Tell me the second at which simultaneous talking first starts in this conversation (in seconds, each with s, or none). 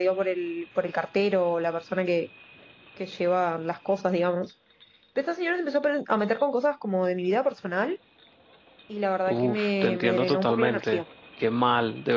9.3 s